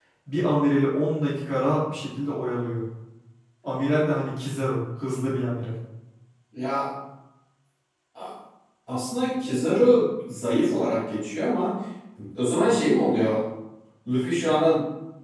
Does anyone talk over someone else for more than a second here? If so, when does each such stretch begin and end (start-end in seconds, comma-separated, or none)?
none